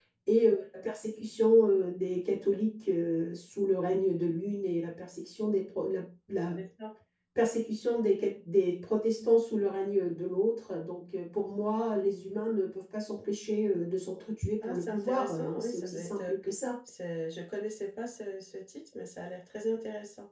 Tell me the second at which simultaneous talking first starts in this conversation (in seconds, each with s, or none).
14.6 s